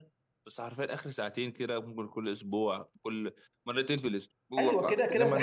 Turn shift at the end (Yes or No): Yes